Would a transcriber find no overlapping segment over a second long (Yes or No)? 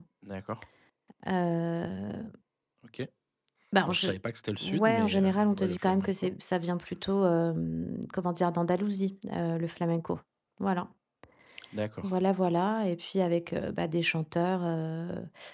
No